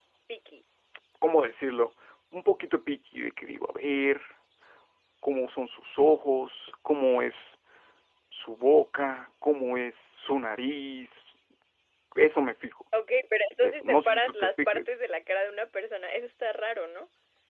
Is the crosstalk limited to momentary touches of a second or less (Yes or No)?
No